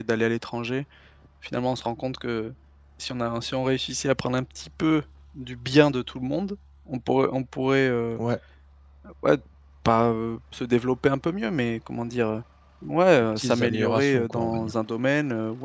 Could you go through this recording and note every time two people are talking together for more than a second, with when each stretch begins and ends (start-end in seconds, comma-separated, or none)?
13.4-14.7